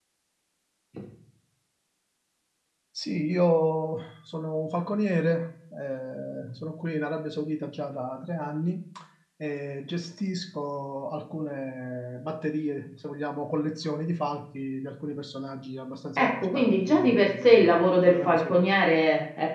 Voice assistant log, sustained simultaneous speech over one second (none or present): present